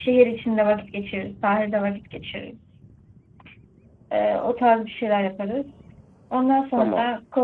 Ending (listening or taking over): listening